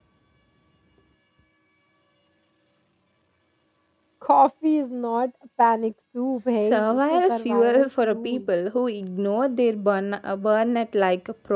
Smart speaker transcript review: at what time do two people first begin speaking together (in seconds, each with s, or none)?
6.6 s